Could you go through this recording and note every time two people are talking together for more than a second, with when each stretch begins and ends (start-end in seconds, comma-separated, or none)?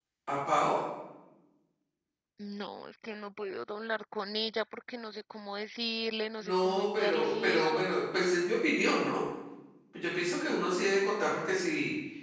6.4-7.9